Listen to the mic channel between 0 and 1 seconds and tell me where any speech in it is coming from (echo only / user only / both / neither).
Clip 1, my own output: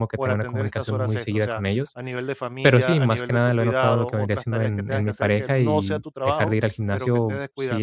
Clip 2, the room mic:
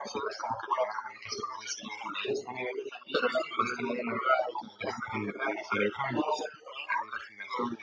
echo only